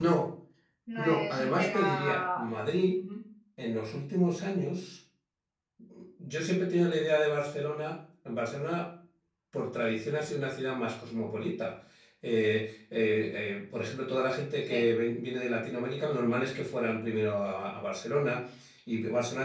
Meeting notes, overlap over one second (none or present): present